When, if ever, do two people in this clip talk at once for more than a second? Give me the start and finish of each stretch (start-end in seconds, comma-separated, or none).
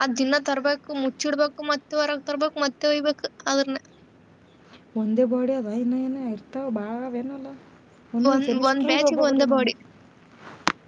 8.3-9.7